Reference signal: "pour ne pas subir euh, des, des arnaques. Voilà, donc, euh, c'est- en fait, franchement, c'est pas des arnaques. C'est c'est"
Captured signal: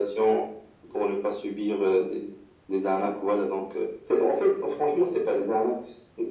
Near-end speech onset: none

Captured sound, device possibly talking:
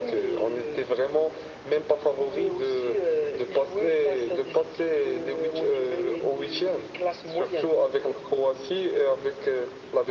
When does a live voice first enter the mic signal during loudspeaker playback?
none

